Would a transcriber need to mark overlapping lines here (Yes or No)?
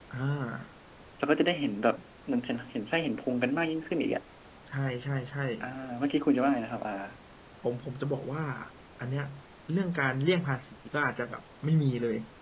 No